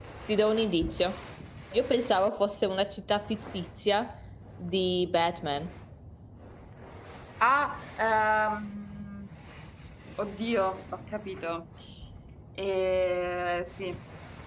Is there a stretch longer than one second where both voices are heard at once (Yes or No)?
No